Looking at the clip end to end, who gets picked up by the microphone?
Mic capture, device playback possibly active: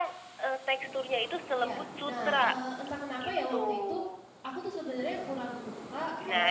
both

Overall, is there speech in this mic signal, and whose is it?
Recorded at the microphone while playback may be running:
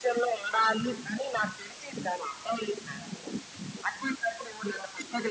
echo only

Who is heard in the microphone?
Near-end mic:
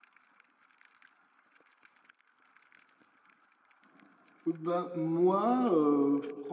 user only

